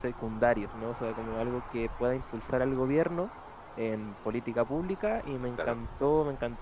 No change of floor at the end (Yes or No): Yes